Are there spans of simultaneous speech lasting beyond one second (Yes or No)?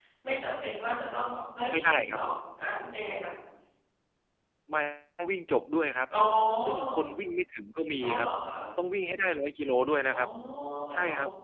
No